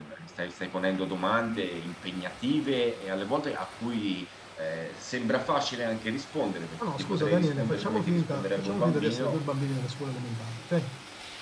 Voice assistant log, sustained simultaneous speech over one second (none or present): present